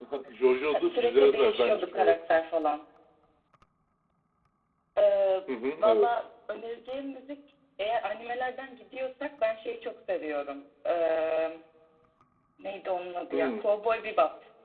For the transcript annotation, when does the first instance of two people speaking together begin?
0.7 s

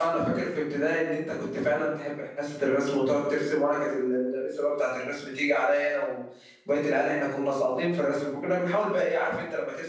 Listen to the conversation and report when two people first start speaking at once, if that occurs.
none

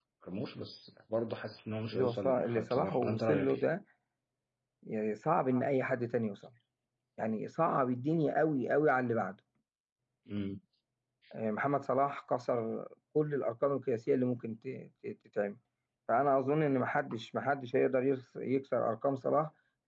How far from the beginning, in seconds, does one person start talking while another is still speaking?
1.9 s

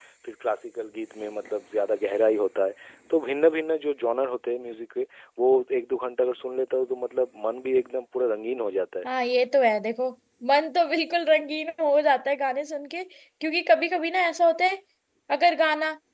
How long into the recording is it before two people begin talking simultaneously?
none

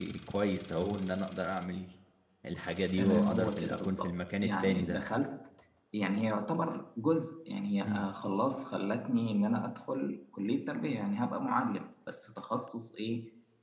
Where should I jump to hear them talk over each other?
3.0 s

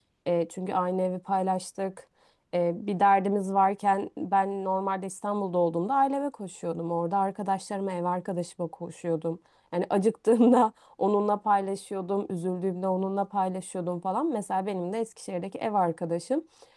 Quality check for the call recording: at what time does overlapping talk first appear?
none

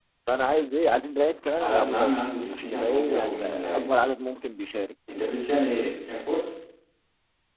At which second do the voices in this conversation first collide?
1.6 s

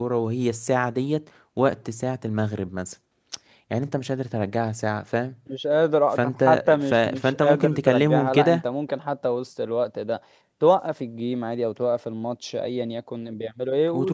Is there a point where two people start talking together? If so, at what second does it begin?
6.2 s

